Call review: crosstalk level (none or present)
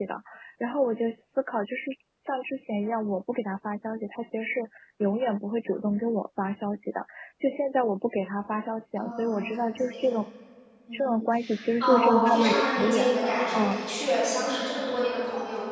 present